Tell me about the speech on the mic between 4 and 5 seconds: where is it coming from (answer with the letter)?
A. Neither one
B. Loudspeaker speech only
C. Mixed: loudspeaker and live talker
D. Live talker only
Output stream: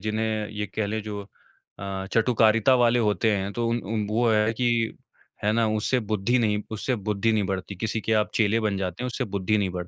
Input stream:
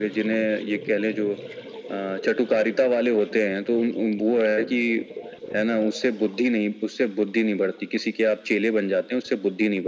B